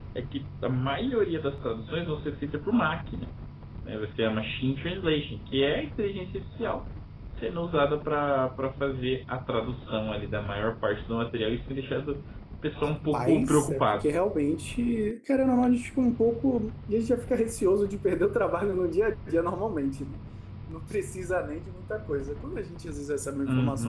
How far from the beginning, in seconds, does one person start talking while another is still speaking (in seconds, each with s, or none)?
12.8 s